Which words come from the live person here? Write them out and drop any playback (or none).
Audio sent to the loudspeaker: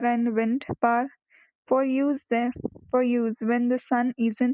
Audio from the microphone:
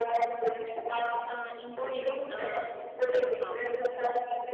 It uh, instills a sense of